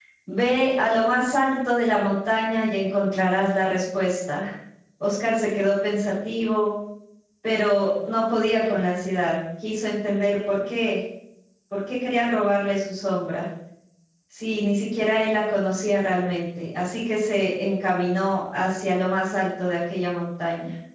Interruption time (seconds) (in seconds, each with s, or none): none